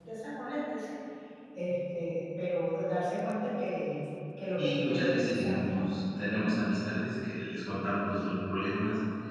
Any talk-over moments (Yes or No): Yes